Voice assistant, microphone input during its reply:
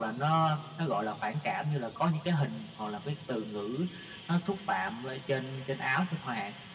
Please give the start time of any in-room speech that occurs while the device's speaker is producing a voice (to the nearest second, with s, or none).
none